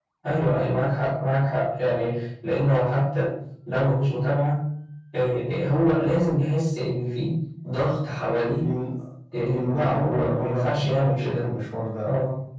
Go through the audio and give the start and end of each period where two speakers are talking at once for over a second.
9.5-11.6

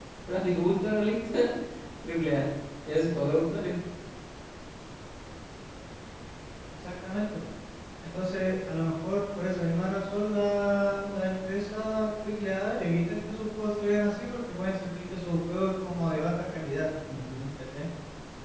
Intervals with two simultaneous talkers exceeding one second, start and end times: none

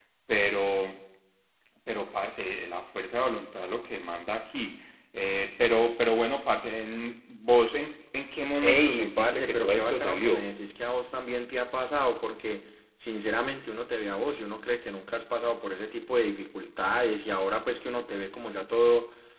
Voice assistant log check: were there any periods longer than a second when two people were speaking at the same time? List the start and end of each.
8.6-10.5

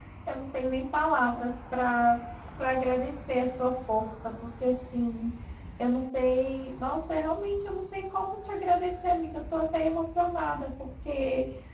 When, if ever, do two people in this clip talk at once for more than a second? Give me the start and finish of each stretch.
none

